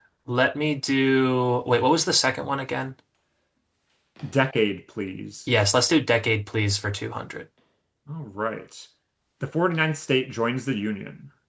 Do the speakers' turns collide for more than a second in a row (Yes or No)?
No